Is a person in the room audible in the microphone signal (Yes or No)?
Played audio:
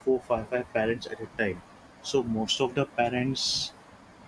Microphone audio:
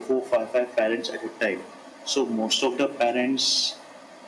No